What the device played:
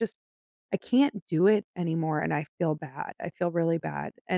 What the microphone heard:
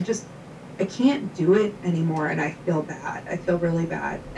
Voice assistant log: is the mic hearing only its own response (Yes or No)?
Yes